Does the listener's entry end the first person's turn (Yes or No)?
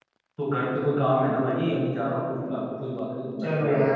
Yes